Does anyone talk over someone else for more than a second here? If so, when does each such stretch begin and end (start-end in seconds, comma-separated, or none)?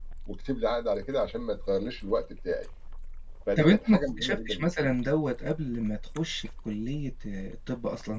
3.6-4.9